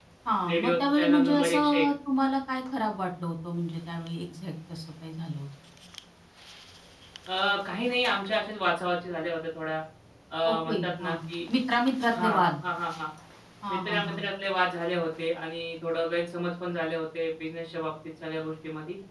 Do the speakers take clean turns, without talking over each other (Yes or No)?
No